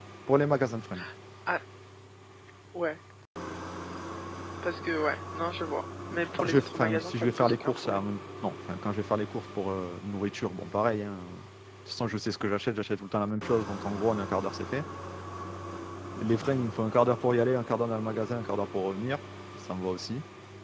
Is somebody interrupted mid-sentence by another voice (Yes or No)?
Yes